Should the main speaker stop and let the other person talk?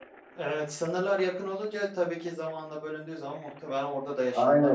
Yes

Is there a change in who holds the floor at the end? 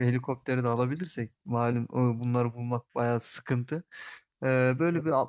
No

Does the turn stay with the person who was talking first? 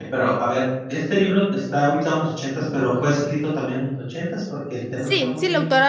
No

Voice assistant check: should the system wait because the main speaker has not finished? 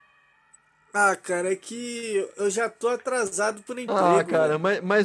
No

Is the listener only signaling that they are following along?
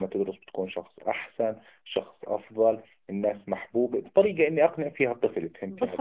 No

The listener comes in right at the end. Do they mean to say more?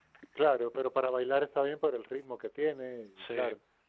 No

